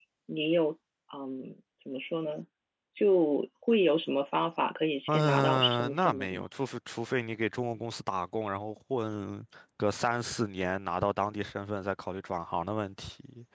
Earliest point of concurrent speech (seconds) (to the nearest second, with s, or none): 5 s